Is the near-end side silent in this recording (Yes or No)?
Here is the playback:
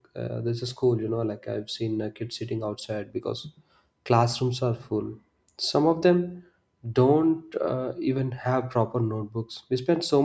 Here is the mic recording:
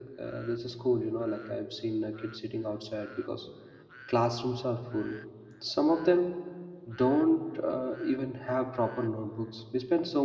Yes